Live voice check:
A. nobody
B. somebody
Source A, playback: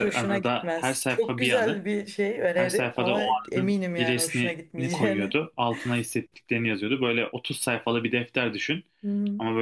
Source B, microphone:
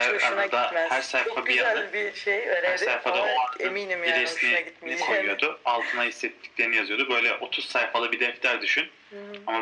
A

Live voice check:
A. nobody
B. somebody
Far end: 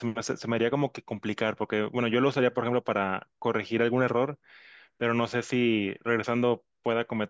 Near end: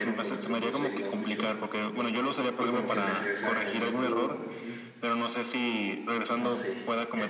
B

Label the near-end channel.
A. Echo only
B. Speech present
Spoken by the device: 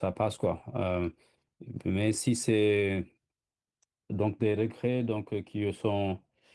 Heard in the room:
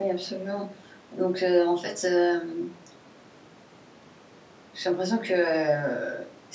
B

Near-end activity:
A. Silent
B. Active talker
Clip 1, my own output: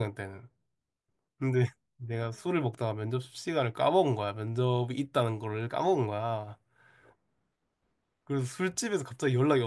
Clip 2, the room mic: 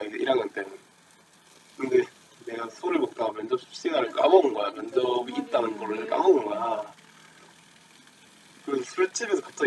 B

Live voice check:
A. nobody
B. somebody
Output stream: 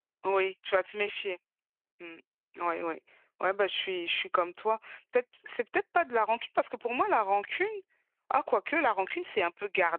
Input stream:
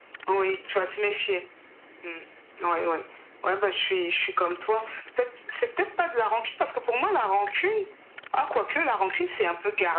A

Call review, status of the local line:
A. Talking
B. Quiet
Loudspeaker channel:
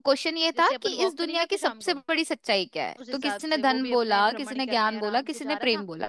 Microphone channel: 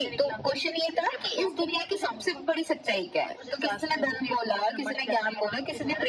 B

